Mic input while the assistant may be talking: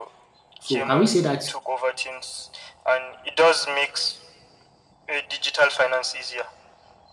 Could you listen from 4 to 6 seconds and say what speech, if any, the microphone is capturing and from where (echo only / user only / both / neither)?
echo only